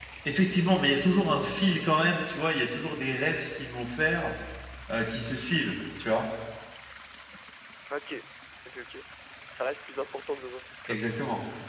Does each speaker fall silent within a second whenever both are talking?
Yes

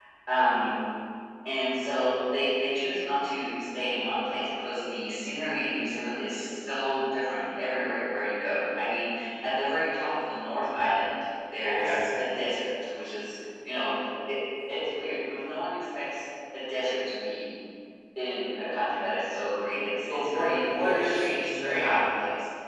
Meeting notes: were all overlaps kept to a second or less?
No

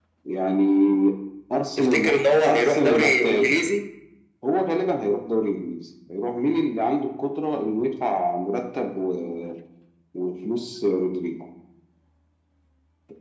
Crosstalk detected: Yes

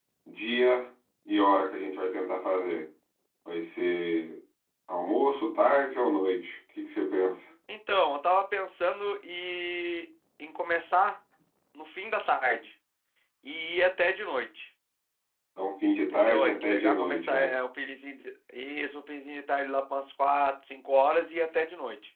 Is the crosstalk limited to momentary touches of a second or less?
No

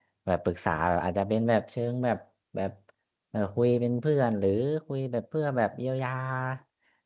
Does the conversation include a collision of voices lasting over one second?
No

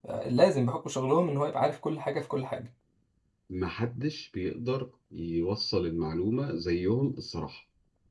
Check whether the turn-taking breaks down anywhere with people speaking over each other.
No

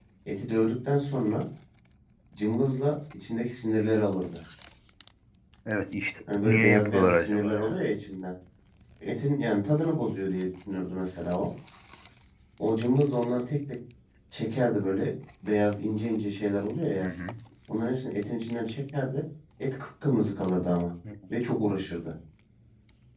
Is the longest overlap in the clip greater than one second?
Yes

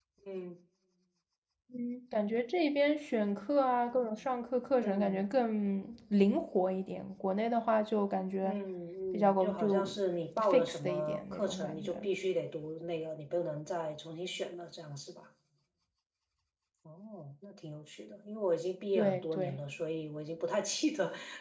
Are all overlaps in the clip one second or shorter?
No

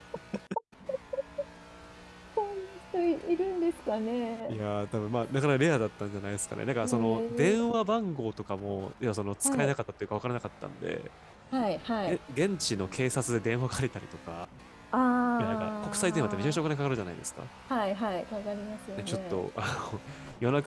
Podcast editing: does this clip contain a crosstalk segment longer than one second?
Yes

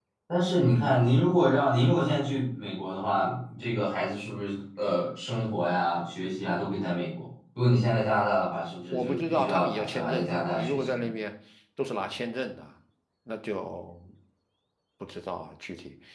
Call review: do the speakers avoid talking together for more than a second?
No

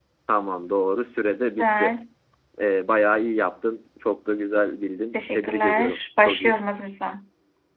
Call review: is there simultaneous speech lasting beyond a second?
Yes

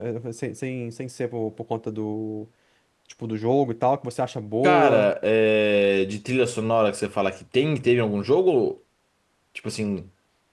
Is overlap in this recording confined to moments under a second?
Yes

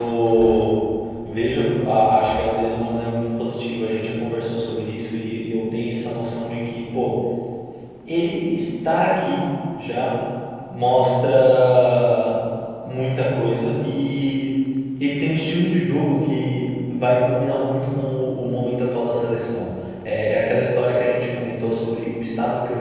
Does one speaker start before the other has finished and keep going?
No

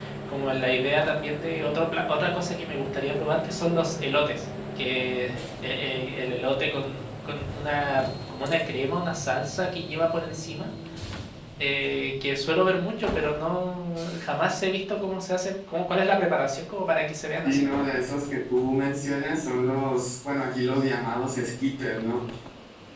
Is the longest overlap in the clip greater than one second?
No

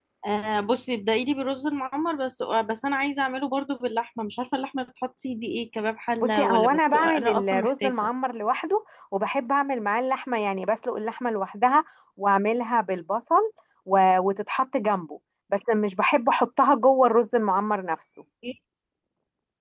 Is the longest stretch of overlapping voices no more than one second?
No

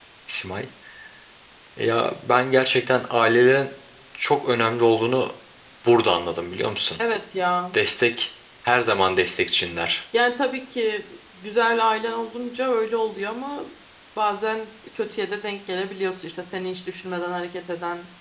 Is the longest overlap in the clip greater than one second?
No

